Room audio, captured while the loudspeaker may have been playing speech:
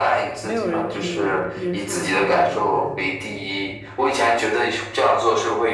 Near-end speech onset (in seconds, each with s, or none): 0.4 s